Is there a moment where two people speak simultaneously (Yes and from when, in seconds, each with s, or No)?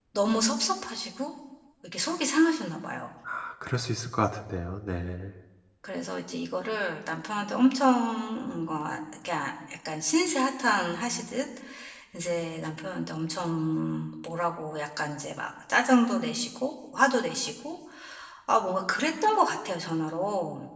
No